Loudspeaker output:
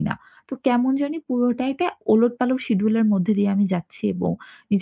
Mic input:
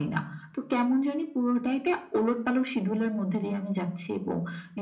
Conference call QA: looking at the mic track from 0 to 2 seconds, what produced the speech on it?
echo only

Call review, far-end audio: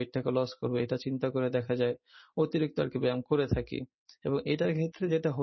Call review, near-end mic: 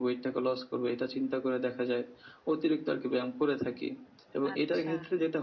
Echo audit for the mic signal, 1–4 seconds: echo only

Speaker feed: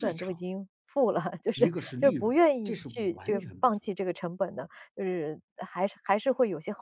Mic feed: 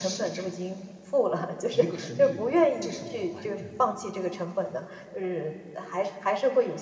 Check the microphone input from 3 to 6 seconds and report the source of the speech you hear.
echo only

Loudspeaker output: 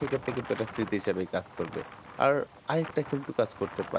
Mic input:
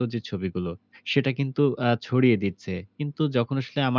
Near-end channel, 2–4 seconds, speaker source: user only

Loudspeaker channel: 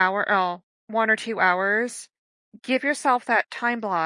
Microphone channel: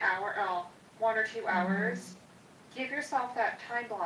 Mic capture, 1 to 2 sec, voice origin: both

